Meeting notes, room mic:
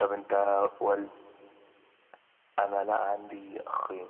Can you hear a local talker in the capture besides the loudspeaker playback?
No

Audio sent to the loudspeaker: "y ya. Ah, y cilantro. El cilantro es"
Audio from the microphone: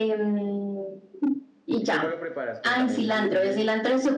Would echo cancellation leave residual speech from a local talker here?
Yes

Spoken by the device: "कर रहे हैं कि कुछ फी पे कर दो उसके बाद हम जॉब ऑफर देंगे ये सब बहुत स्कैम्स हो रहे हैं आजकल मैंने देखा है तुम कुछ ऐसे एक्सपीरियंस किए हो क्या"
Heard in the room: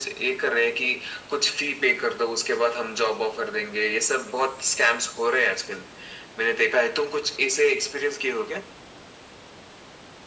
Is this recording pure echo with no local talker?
Yes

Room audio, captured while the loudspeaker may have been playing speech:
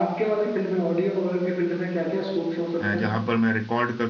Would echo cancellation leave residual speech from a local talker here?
Yes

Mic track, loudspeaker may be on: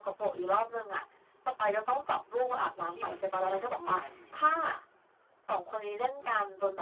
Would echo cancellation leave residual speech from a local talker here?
Yes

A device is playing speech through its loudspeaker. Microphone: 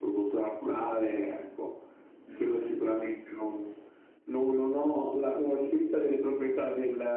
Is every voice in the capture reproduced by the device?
No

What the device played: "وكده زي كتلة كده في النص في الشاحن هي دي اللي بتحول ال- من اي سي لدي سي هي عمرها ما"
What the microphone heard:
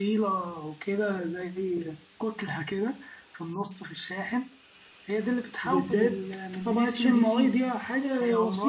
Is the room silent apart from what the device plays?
No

